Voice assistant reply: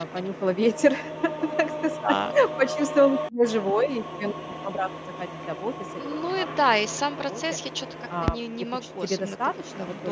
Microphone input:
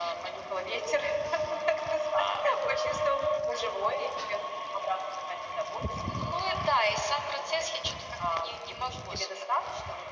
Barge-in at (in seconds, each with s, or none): none